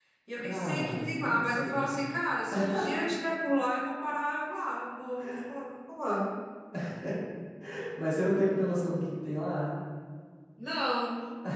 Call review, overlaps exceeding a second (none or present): present